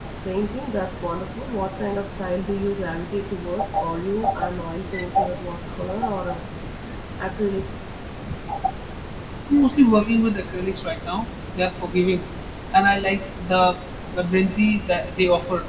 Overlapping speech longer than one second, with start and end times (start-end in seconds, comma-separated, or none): none